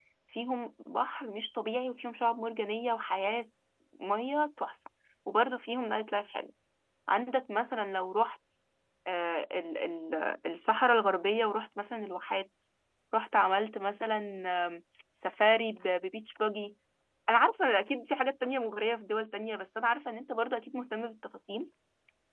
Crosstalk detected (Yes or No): No